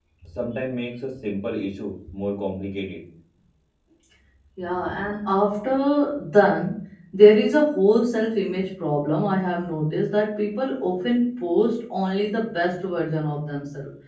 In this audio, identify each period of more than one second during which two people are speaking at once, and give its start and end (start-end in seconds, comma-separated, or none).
none